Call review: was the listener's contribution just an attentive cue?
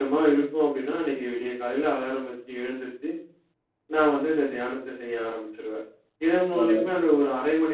Yes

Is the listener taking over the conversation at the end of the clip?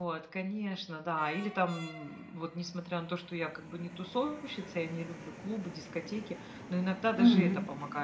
No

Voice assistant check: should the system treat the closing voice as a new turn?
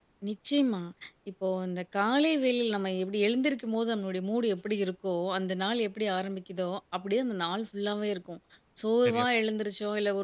No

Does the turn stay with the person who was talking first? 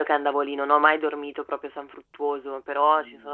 Yes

